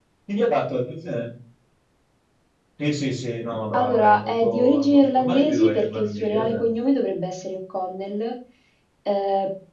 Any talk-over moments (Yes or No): Yes